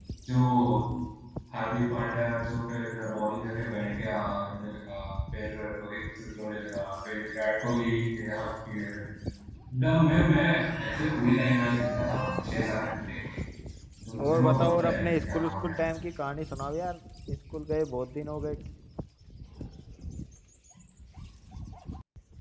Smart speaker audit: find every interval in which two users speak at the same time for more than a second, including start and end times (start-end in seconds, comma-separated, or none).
14.2-15.7